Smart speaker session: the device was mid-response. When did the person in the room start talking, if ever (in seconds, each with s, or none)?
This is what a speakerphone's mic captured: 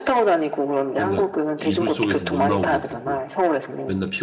0.9 s